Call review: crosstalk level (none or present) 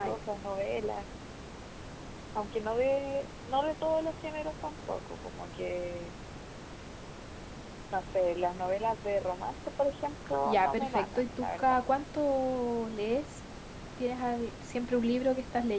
present